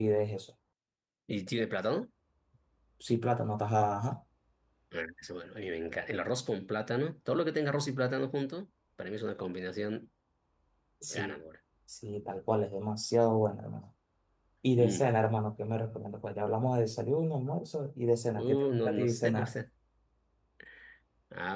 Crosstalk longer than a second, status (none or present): present